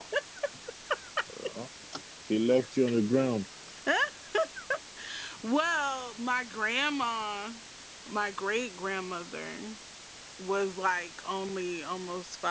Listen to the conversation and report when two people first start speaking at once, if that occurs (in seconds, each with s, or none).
none